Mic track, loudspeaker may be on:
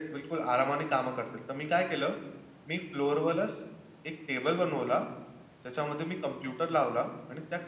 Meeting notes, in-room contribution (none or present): none